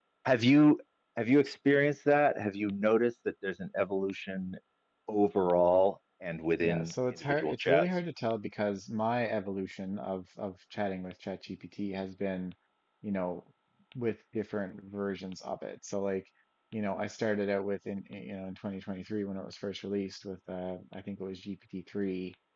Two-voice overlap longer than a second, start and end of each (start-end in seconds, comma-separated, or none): 6.6-7.8